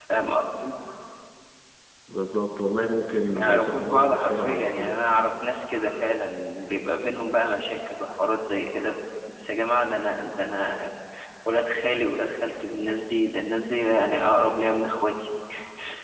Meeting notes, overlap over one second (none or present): present